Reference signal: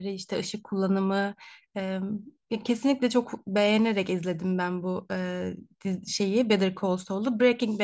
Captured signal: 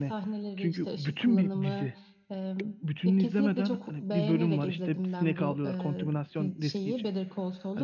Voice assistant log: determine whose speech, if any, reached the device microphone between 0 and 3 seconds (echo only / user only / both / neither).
both